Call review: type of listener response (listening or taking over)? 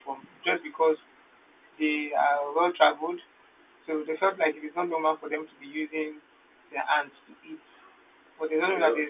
listening